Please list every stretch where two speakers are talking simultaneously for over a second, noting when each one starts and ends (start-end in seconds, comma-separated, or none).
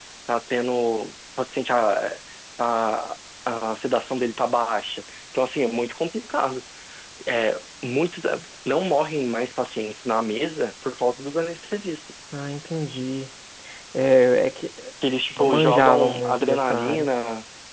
15.4-17.1